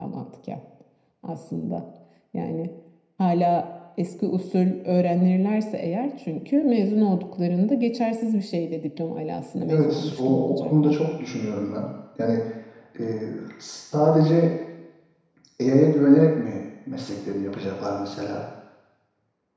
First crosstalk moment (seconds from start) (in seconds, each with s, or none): 9.7 s